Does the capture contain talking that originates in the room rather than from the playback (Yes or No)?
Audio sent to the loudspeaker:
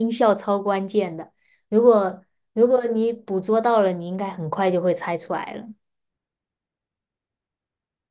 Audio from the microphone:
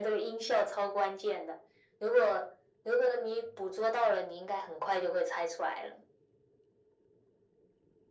No